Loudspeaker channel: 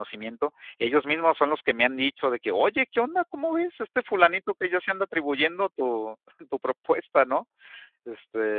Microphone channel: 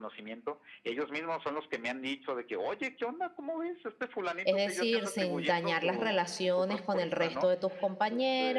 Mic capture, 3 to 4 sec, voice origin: echo only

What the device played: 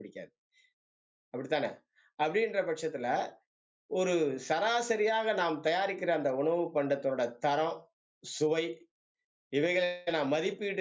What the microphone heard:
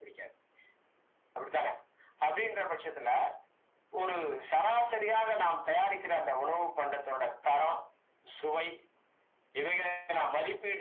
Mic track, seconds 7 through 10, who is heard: echo only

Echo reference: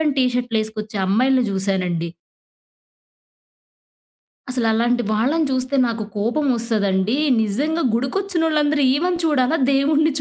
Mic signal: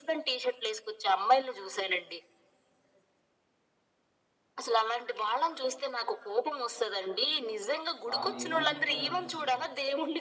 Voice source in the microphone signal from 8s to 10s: both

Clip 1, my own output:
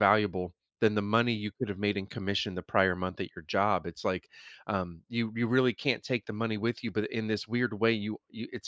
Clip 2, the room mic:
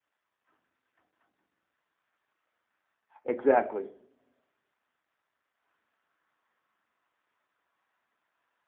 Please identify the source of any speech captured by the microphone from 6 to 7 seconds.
neither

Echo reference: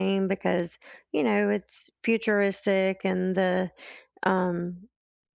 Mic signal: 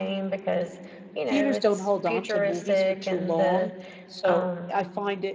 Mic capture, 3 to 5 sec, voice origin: both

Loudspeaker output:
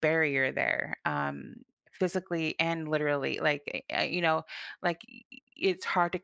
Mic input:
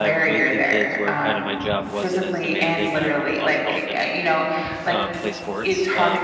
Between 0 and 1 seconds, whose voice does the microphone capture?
both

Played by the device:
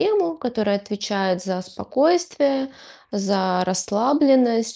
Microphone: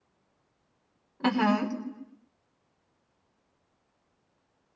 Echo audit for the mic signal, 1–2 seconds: user only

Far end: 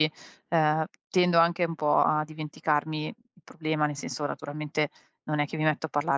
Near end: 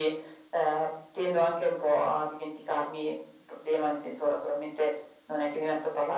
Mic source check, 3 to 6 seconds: echo only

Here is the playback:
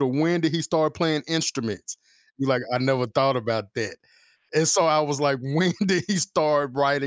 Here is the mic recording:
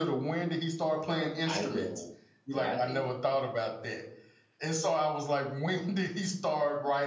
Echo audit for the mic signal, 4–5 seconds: echo only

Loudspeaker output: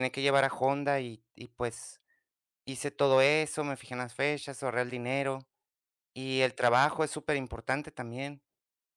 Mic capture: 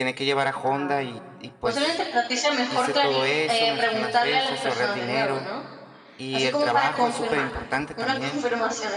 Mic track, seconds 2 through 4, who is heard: both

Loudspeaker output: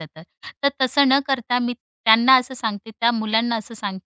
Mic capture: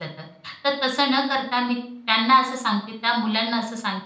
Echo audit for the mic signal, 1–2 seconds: echo only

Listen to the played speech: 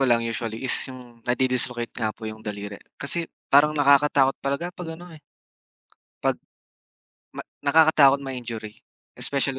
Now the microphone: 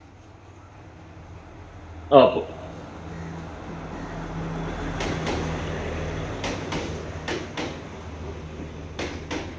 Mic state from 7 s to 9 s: neither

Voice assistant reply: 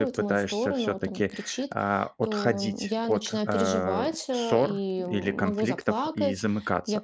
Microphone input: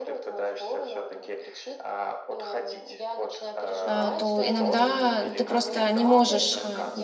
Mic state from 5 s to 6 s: both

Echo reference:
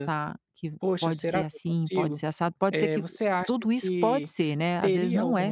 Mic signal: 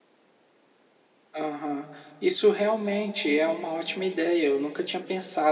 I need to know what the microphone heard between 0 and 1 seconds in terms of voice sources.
neither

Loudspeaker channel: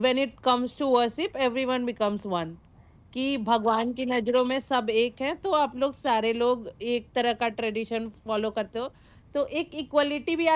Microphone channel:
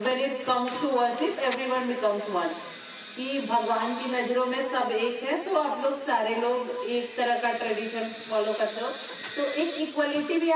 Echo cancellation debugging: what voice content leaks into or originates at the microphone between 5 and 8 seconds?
echo only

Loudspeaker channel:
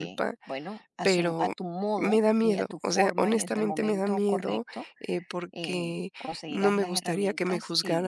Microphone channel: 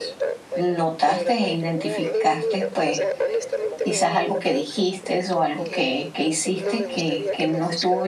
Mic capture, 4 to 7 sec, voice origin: both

